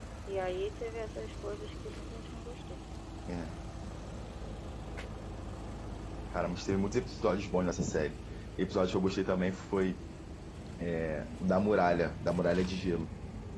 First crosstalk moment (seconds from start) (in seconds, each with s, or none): none